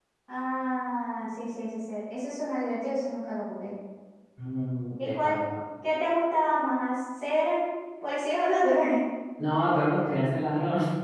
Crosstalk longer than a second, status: none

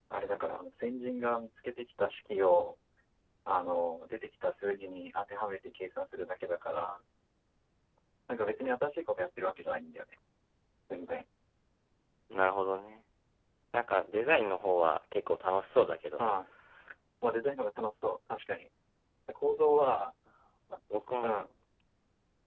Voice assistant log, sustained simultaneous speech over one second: none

